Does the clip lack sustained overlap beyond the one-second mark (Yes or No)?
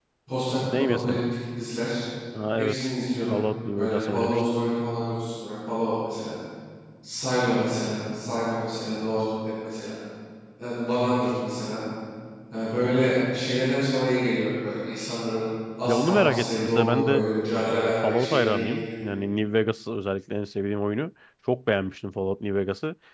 No